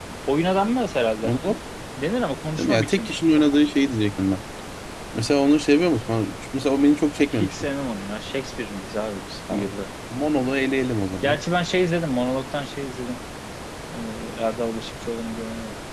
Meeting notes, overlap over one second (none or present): none